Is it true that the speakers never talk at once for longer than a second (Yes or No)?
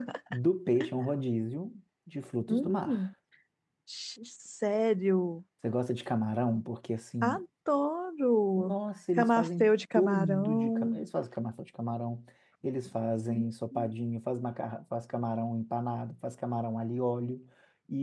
No